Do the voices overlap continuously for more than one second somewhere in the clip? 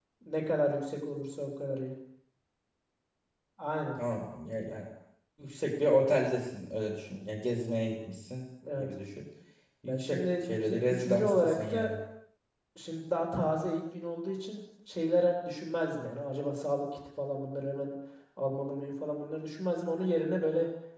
Yes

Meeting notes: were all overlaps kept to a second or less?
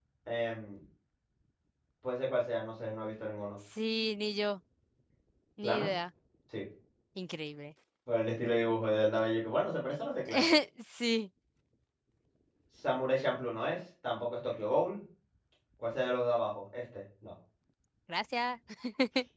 Yes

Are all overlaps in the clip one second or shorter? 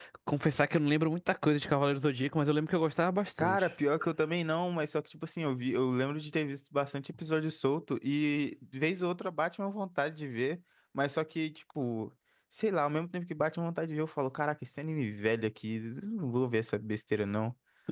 Yes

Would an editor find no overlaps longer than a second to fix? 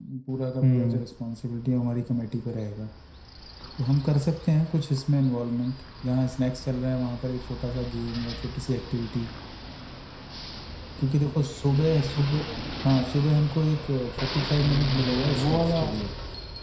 No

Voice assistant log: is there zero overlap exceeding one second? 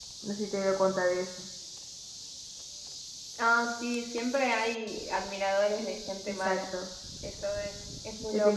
Yes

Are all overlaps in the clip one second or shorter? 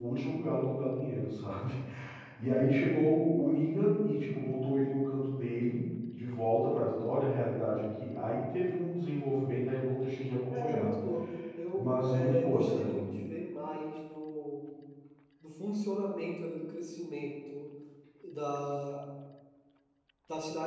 No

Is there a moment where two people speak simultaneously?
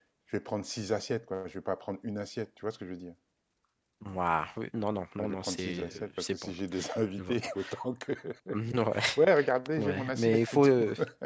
Yes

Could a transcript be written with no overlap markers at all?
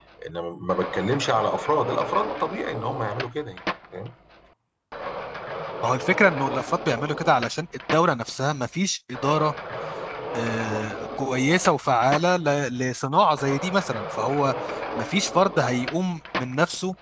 Yes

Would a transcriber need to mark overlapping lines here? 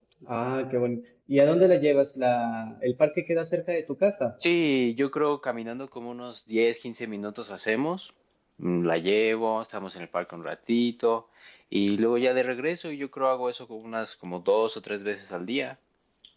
No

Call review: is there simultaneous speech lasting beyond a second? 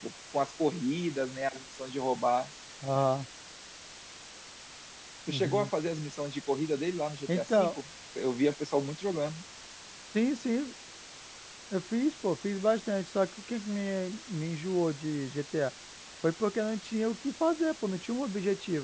No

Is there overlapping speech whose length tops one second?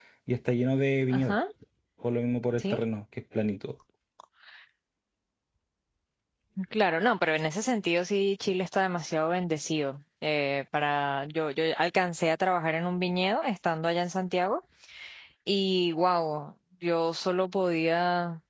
No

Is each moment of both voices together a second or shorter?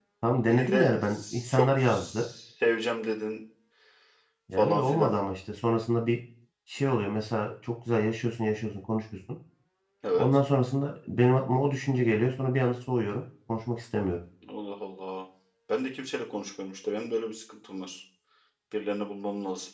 No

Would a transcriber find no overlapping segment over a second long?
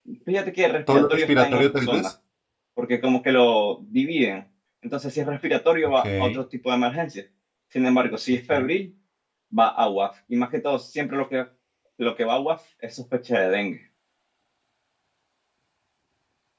No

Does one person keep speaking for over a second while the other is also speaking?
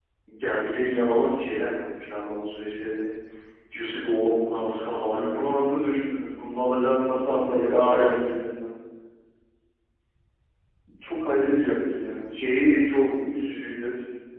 Yes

